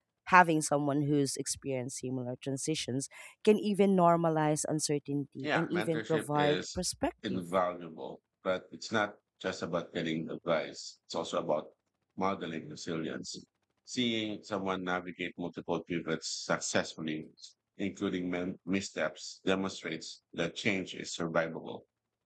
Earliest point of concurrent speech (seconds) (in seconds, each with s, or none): 5.4 s